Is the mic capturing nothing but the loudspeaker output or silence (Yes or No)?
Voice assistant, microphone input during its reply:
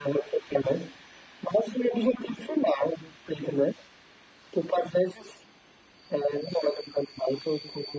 Yes